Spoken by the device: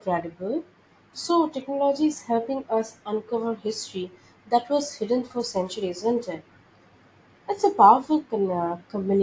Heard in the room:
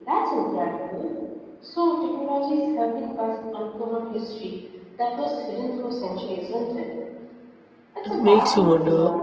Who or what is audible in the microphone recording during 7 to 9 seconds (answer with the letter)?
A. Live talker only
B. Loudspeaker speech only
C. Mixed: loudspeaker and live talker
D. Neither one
C